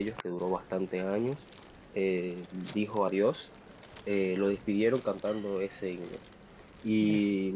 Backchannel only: Yes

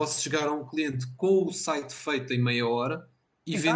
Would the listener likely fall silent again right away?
Yes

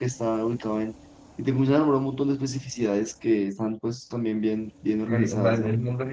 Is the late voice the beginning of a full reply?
Yes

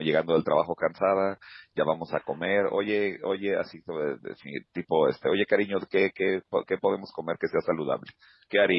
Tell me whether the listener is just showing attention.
No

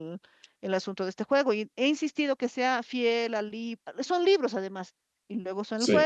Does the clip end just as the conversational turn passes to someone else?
No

